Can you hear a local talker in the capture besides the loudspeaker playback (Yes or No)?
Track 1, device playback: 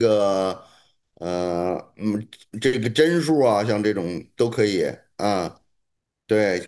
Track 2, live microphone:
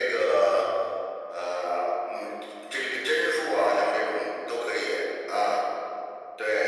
No